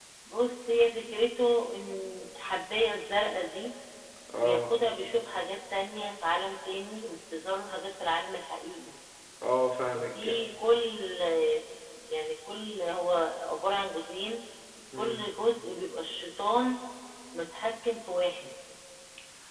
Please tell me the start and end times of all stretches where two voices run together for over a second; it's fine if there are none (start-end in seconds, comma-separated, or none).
none